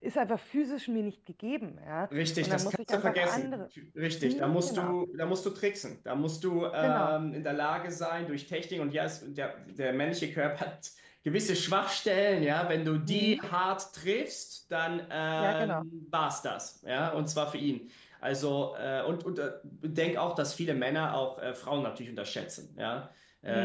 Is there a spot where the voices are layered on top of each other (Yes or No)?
Yes